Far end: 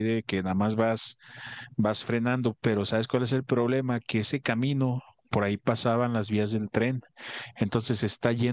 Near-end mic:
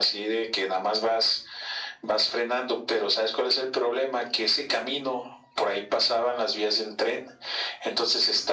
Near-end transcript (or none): none